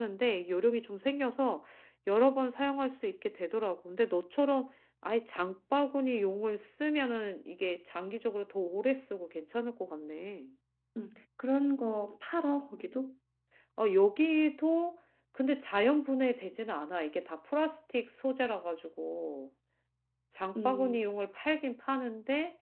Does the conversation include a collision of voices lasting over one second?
No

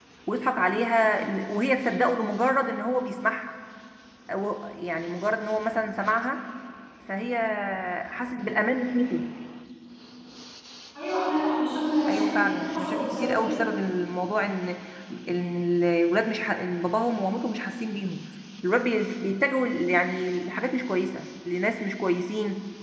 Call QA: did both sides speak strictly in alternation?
No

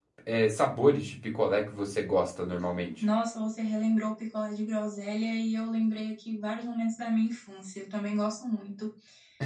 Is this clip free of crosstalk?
Yes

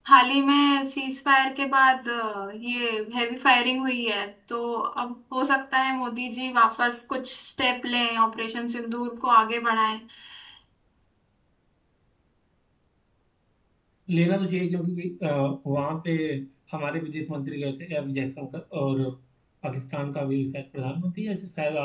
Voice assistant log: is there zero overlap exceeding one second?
Yes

